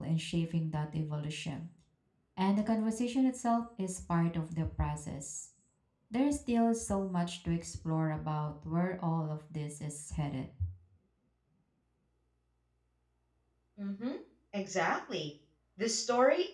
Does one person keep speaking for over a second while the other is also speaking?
No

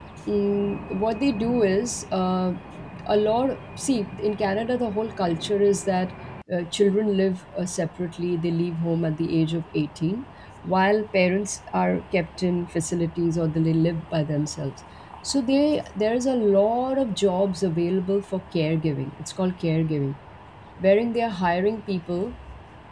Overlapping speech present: No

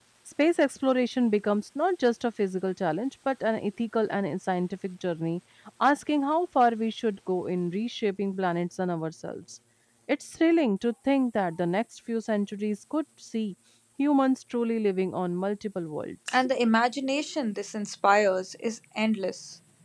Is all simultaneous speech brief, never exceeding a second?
Yes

